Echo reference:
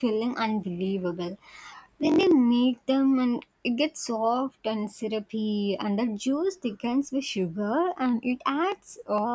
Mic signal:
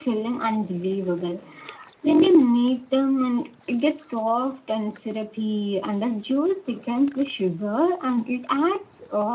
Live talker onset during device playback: none

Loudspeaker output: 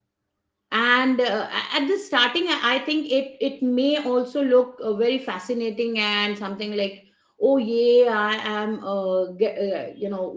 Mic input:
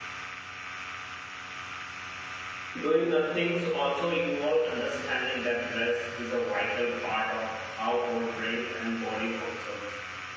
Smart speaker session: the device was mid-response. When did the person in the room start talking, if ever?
2.8 s

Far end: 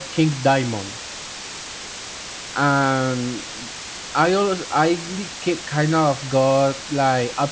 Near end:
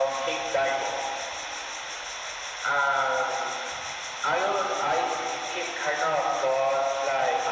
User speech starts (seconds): none

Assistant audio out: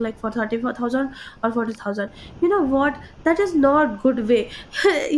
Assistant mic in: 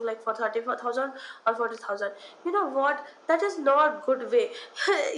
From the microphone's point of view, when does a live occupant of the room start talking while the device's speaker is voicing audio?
none

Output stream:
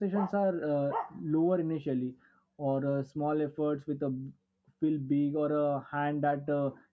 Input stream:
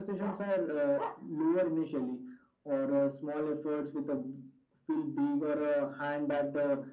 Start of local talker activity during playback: none

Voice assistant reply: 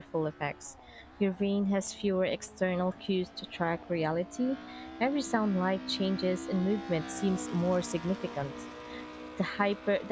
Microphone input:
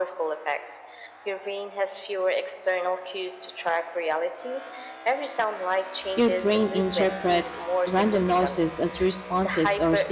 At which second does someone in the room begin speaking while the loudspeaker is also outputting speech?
6.1 s

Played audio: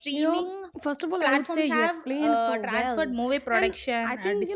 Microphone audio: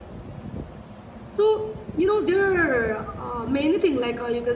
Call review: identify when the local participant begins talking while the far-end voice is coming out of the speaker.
1.3 s

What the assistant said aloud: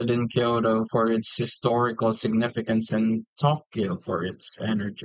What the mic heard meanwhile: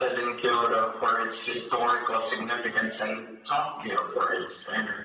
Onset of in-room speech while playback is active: none

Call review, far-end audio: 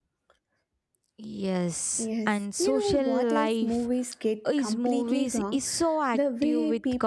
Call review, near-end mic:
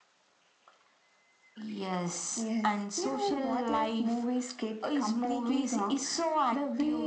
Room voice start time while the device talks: none

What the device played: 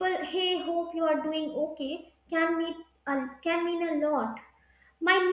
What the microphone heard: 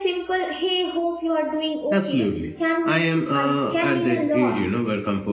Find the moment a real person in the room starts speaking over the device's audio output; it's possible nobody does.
1.9 s

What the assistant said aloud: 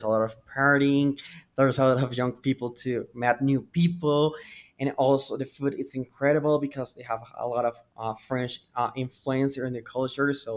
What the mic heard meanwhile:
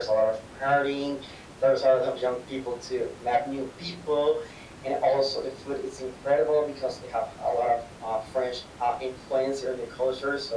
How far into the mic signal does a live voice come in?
none

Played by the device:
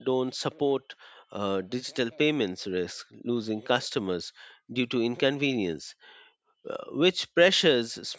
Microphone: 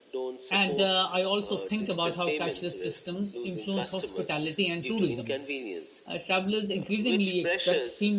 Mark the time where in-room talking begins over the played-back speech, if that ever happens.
0.5 s

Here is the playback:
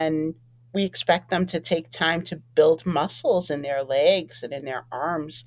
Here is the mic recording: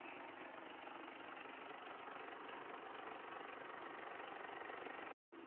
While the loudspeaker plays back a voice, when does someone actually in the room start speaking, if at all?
none

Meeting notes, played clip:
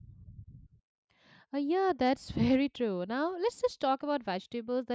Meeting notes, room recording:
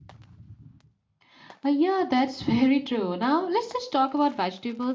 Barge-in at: none

